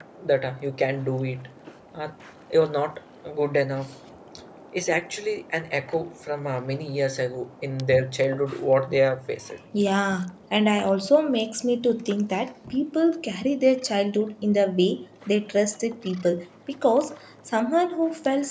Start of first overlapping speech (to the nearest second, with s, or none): none